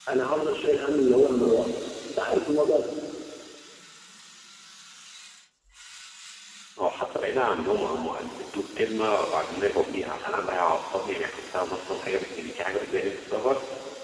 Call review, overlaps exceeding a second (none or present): none